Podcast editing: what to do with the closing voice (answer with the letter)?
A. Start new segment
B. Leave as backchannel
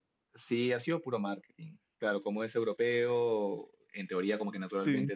B